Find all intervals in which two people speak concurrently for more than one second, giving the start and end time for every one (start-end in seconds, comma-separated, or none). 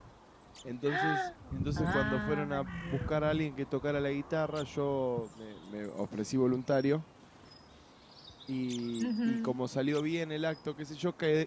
1.8-3.4